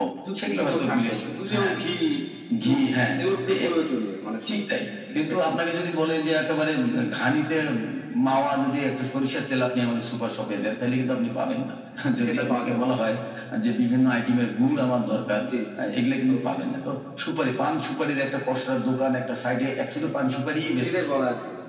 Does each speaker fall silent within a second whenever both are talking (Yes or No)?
No